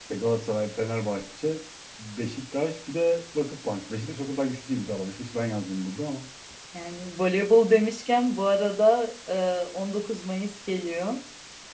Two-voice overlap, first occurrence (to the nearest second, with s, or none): none